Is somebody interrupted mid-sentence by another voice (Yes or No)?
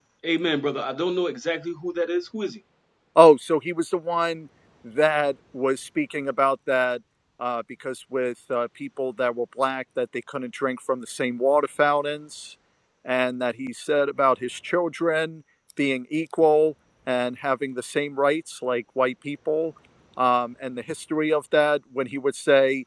No